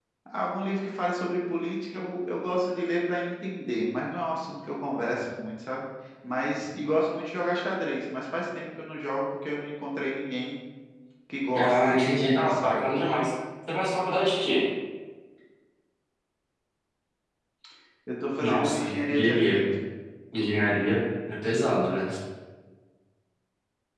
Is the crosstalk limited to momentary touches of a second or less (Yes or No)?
No